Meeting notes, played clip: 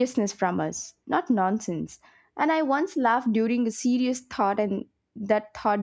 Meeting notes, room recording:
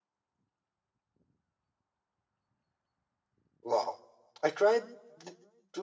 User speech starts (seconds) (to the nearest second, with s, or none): 4 s